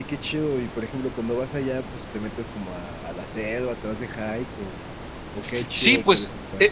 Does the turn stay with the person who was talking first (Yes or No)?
No